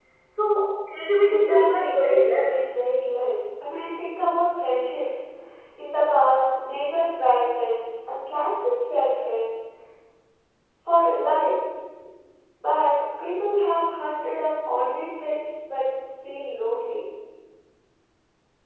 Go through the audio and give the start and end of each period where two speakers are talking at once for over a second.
1.2-2.5

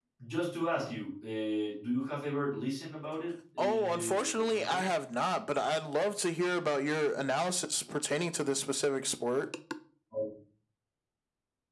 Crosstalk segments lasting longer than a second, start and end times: 3.6-4.8

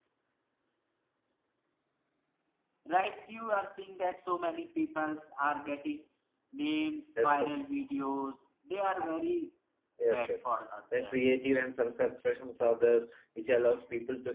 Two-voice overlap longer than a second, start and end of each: none

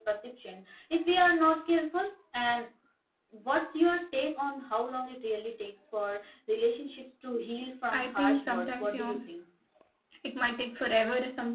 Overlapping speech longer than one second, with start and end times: 7.9-9.2

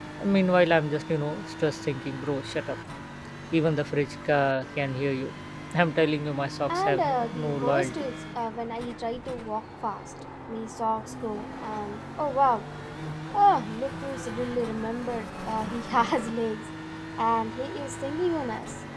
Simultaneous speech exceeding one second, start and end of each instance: 6.7-8.0

